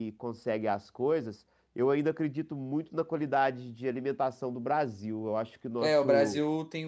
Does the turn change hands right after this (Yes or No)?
Yes